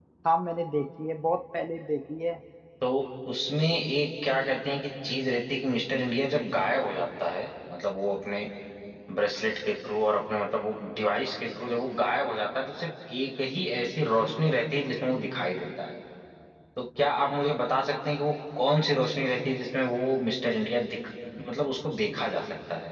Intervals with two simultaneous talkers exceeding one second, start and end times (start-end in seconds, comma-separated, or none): none